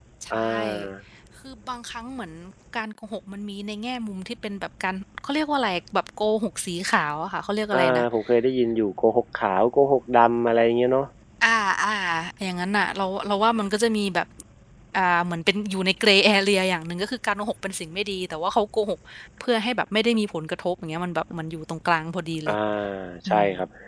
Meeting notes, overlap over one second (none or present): none